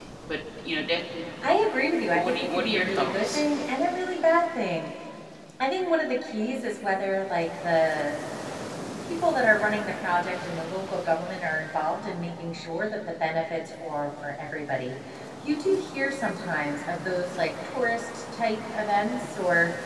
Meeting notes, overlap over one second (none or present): present